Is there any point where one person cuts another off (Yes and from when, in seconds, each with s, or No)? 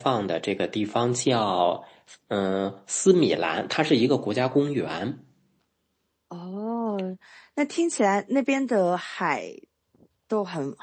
No